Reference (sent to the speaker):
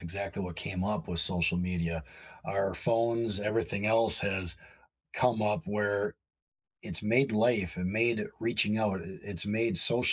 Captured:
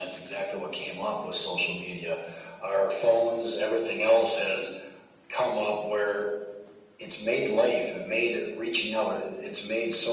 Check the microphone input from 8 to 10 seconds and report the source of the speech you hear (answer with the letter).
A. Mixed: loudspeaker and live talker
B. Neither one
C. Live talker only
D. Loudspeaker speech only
D